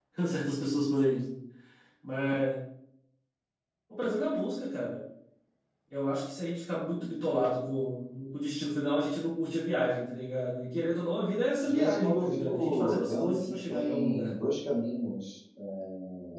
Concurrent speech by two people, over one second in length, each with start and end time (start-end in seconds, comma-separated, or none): 11.6-14.4